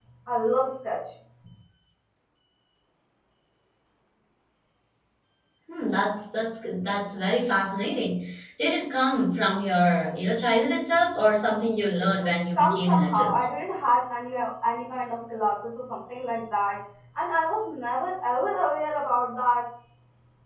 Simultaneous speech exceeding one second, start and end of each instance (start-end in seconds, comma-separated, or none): 12.0-13.5